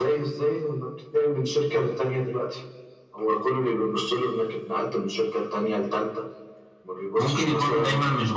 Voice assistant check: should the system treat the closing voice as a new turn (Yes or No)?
Yes